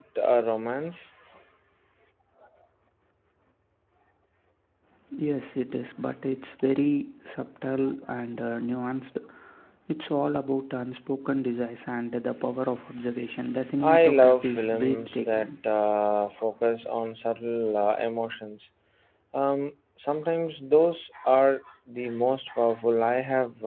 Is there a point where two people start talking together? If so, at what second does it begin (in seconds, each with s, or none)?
13.8 s